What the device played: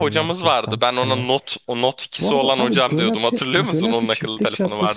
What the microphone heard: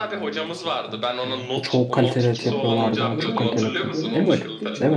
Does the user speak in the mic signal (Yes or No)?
Yes